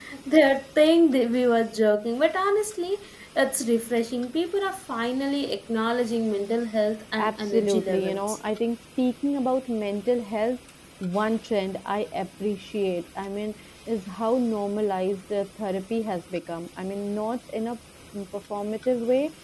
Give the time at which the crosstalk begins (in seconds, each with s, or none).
7.2 s